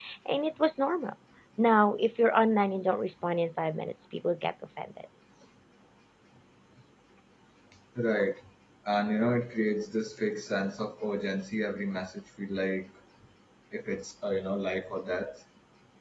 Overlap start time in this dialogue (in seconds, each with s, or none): none